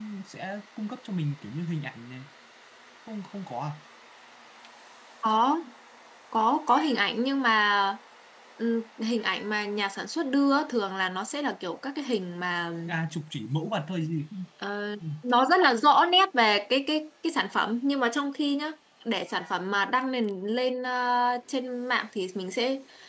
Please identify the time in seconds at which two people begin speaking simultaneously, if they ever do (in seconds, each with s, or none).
none